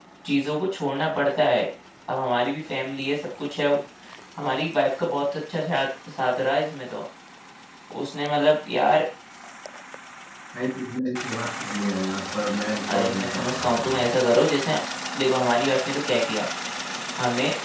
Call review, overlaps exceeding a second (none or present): present